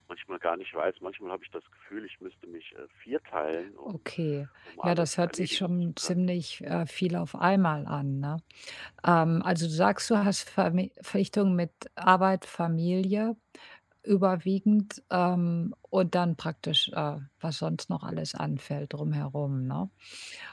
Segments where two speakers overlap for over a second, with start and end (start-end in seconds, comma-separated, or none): 4.8-6.3